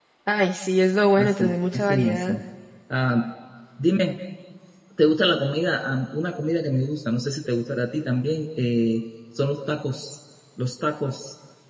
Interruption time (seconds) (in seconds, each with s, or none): 1.2 s